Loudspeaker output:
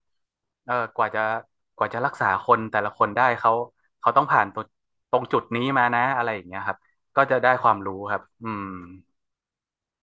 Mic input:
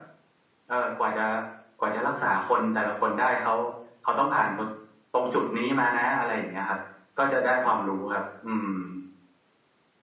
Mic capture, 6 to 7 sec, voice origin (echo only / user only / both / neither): echo only